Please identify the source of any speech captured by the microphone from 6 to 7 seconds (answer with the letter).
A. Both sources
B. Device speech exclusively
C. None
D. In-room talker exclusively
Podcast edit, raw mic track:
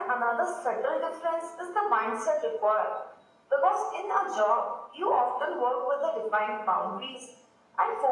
B